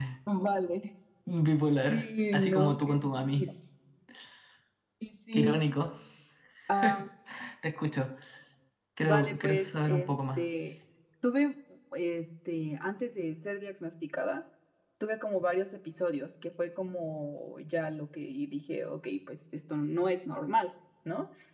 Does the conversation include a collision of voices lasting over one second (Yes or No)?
Yes